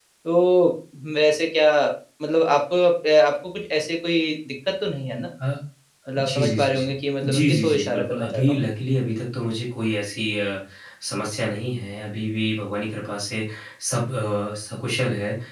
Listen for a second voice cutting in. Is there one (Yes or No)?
Yes